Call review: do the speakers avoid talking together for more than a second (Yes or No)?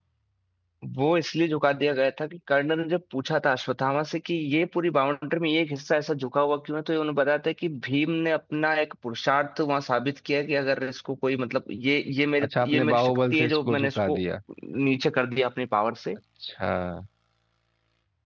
No